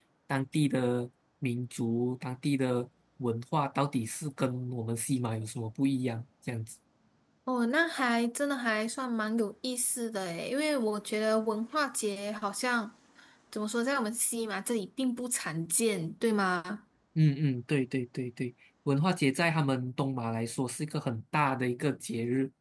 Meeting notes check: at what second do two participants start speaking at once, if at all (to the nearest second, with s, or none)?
none